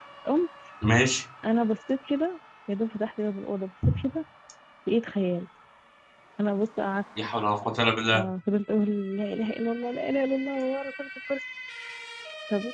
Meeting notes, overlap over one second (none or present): none